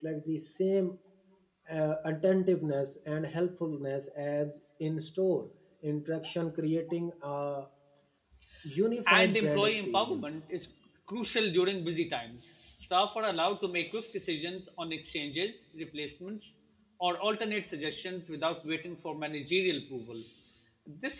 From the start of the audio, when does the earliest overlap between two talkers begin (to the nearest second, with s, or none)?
9 s